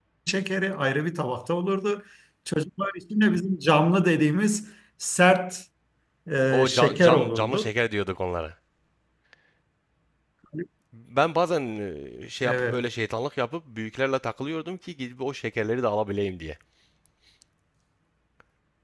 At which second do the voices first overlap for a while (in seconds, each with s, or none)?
6.5 s